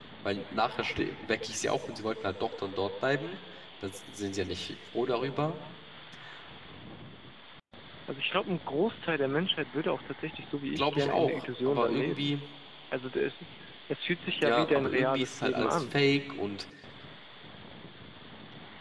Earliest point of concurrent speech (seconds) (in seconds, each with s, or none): 10.8 s